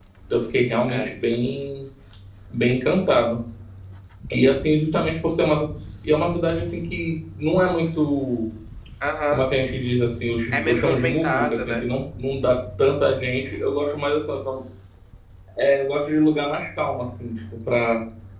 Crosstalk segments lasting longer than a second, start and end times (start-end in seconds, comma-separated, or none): 10.5-11.8